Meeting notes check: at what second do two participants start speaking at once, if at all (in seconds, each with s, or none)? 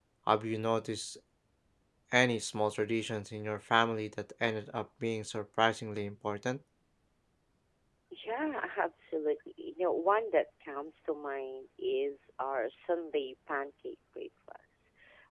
none